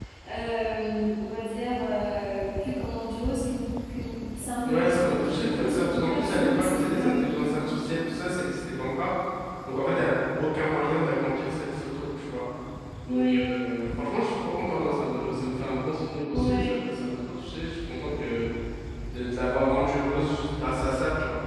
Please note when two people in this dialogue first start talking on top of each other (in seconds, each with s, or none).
4.6 s